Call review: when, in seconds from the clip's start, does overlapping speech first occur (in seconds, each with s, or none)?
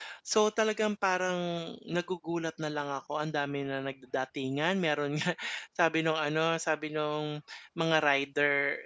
none